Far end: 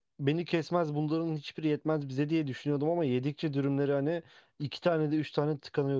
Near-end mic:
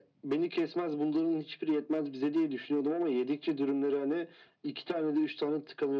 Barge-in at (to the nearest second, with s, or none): none